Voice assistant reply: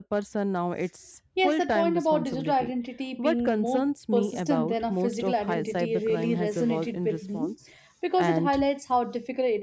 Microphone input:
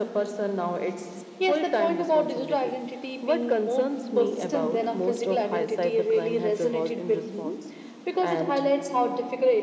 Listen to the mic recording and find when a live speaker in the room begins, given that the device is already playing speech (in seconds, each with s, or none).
none